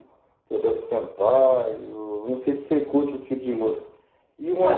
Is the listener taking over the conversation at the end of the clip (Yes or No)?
Yes